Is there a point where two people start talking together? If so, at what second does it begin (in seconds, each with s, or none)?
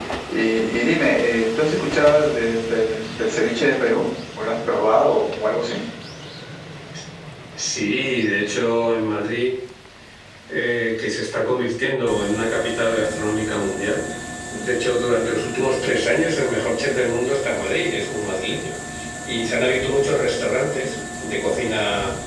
none